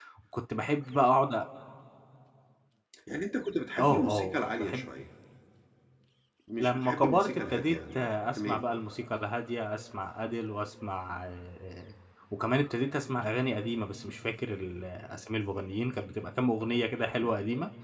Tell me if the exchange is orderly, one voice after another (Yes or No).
No